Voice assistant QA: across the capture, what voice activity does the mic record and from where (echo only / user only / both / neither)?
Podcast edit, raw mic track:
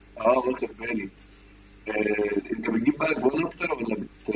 echo only